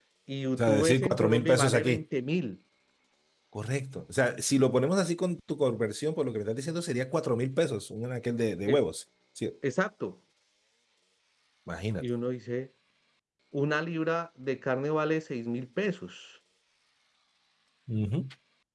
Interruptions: present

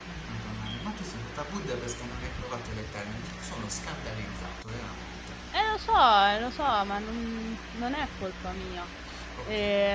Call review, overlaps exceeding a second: none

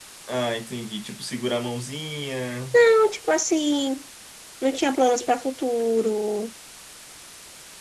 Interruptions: none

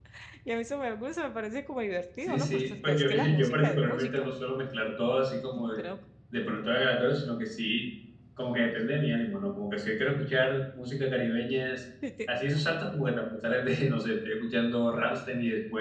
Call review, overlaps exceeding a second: present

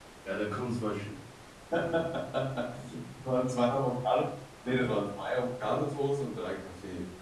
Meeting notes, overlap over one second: none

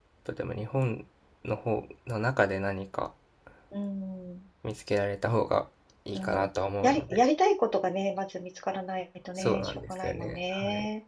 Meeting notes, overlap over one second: present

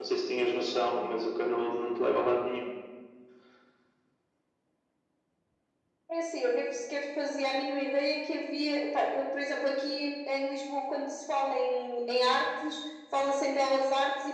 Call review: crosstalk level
none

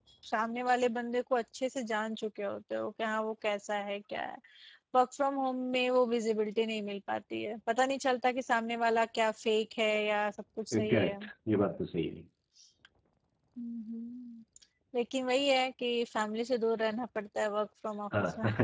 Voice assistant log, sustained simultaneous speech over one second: none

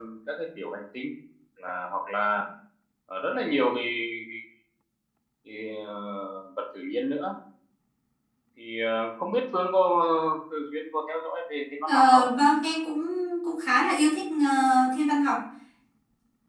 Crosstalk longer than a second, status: none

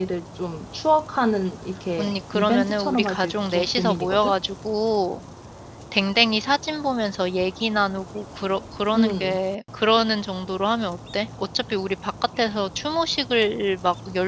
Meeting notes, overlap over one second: present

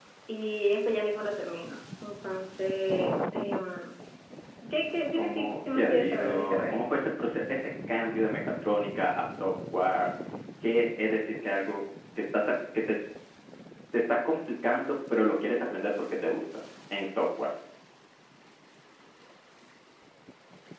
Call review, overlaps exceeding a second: present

